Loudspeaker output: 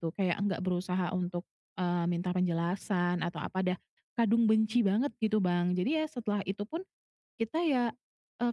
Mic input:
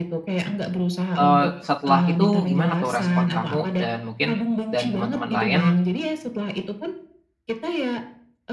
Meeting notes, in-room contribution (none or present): present